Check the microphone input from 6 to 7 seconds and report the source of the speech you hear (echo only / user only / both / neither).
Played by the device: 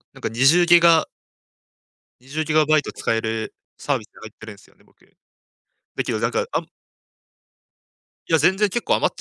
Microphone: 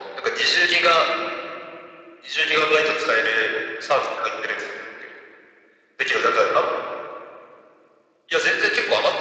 echo only